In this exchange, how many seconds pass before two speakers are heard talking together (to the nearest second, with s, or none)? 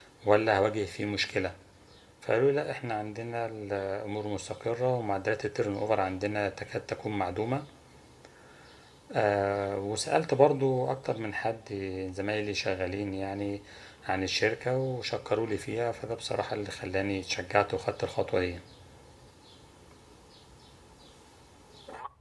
none